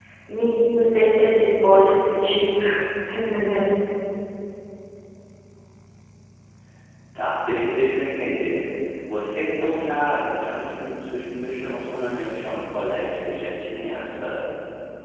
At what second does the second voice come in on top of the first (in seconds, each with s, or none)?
none